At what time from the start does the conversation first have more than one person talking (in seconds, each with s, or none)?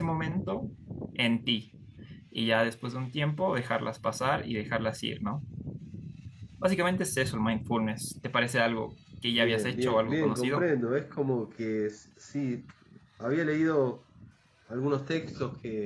9.4 s